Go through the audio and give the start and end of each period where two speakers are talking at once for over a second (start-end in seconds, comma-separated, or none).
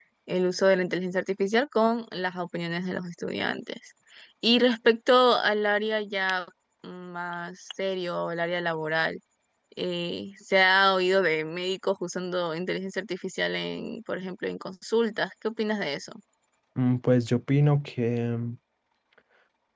none